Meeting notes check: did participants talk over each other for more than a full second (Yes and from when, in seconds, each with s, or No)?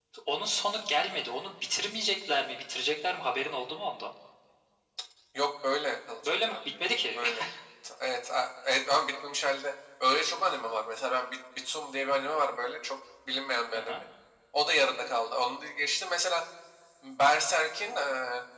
No